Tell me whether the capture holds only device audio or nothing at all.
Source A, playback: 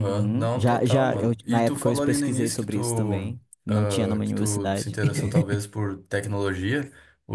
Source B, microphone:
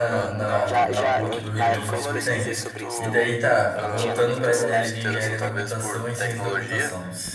No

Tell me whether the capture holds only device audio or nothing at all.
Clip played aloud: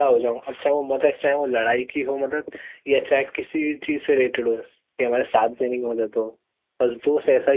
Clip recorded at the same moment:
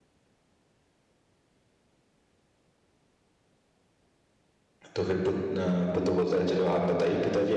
No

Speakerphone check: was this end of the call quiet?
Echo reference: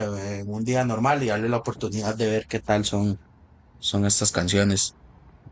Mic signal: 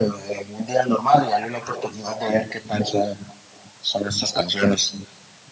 Yes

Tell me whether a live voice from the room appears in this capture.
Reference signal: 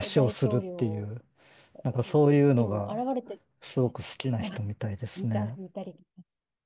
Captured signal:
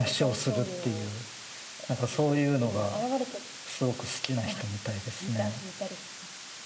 No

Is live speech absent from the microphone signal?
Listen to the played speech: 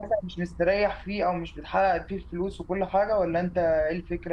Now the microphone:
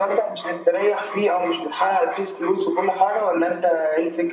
Yes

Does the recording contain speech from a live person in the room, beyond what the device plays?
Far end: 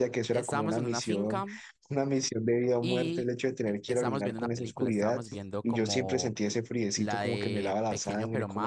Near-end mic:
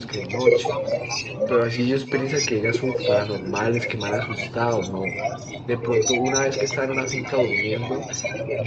Yes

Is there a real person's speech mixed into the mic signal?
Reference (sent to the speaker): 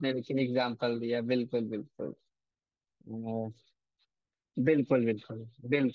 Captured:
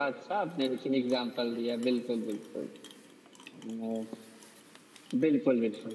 No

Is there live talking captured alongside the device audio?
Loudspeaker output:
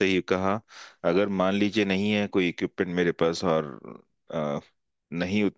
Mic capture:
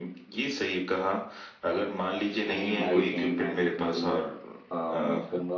Yes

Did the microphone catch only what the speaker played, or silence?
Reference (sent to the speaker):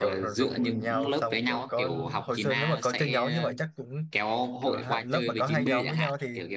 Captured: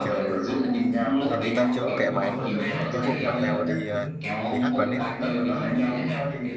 No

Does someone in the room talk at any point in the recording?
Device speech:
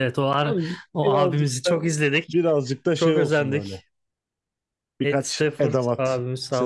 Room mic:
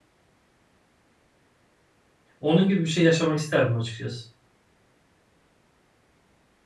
Yes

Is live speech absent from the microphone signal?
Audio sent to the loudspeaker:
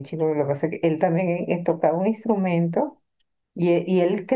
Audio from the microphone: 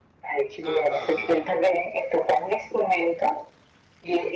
No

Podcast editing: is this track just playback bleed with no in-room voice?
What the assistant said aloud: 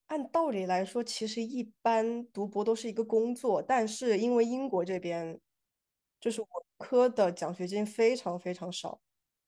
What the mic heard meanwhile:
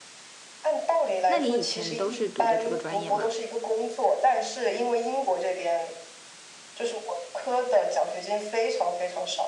No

